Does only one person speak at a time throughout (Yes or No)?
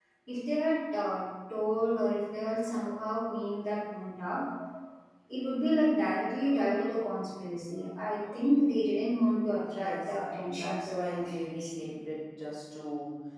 No